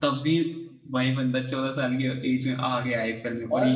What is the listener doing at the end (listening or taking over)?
taking over